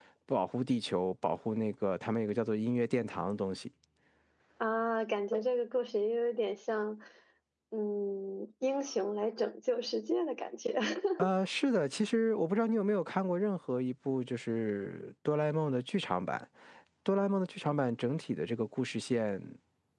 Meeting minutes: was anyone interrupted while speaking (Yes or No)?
No